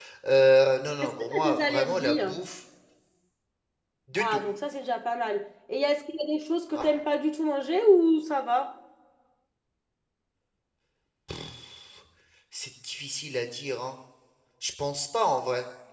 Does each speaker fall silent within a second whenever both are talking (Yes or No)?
No